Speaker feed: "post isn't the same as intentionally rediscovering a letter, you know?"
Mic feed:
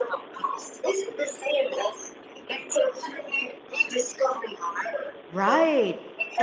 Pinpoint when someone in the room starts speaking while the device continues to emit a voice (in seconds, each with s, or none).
5.3 s